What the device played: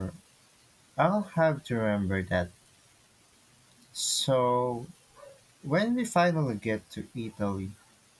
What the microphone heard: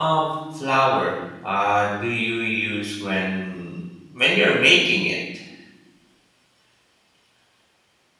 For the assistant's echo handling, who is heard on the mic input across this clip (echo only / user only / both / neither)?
user only